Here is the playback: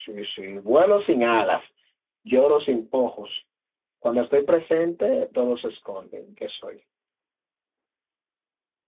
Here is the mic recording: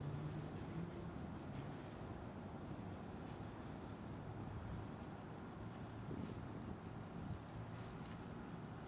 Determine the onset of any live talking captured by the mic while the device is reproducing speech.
none

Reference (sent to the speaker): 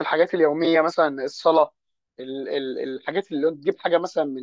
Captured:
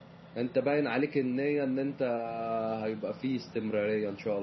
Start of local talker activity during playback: 0.4 s

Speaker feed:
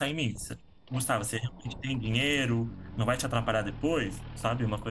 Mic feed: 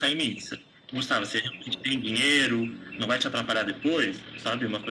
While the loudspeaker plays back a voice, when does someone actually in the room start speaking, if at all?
none

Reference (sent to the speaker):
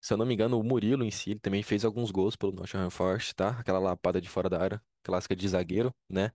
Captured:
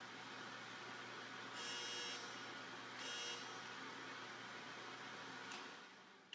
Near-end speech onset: none

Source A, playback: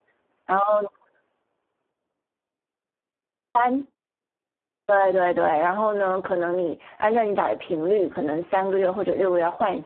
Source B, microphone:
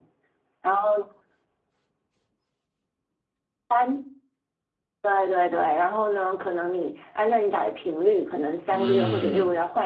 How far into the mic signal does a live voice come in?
8.7 s

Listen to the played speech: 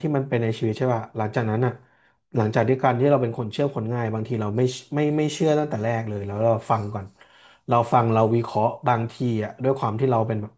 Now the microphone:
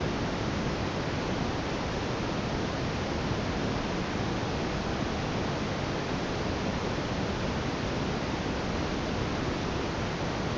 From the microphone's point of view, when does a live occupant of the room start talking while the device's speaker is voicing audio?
none

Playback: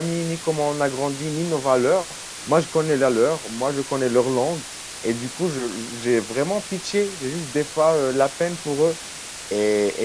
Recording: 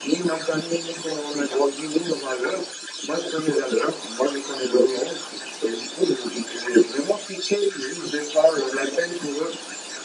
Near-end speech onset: none

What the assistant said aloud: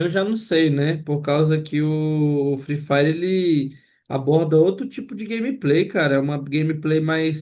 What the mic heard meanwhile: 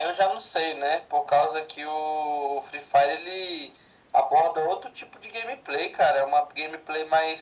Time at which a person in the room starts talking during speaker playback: none

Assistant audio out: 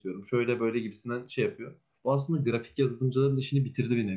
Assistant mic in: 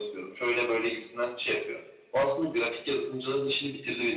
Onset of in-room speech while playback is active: none

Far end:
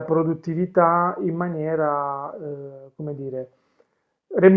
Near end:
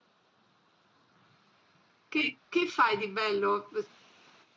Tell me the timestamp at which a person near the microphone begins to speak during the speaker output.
2.1 s

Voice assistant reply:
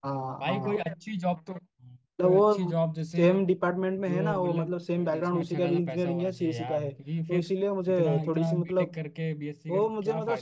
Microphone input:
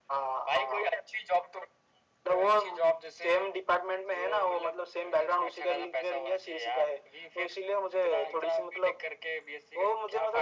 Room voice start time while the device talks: none

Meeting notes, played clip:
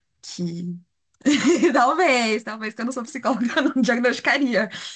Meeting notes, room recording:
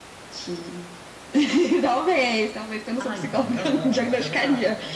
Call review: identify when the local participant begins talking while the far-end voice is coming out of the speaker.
3.0 s

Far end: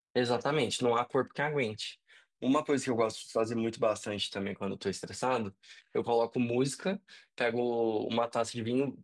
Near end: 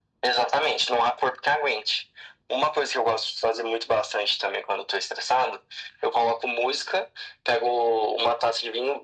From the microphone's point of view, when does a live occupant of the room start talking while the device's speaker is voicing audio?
none

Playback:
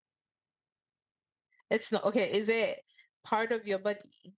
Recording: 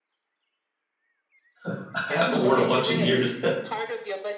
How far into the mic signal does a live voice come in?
1.7 s

